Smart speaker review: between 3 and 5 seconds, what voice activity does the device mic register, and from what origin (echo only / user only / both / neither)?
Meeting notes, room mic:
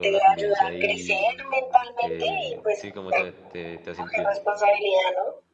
both